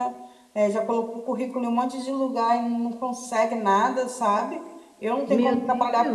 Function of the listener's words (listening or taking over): listening